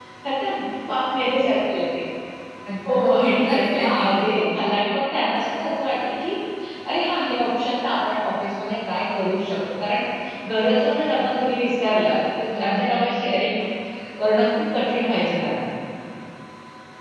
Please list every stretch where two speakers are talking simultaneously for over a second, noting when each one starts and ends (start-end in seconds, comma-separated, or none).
2.9-4.2